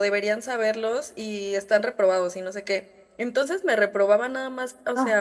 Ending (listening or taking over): listening